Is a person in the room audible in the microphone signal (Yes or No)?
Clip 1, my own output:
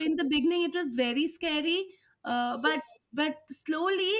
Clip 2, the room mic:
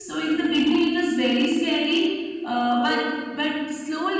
No